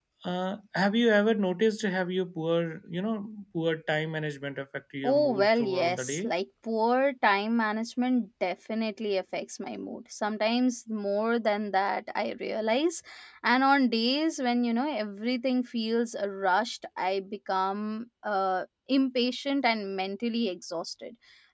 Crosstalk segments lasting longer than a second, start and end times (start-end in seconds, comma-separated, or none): 5.0-6.3